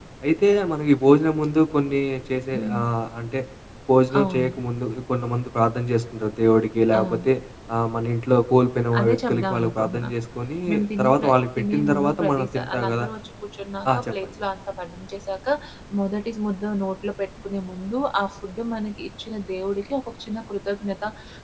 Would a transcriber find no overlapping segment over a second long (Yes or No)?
No